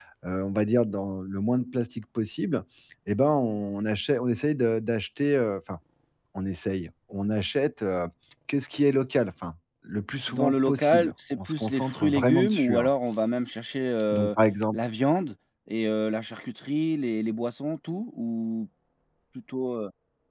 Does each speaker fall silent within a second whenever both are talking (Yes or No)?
No